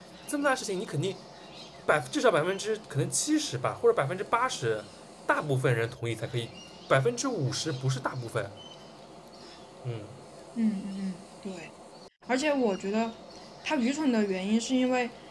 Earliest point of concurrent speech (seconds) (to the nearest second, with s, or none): none